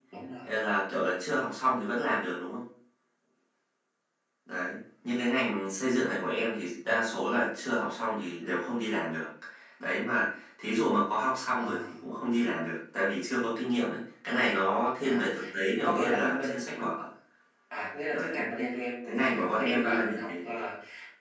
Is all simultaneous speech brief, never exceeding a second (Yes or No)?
No